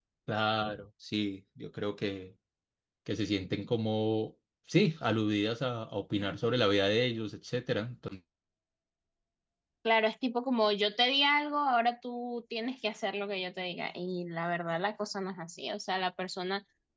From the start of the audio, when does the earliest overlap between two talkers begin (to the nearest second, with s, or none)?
none